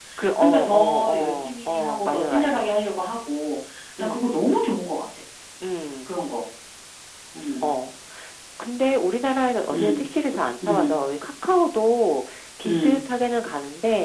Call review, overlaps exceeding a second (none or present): present